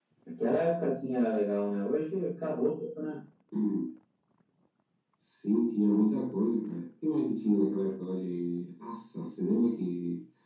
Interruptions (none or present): none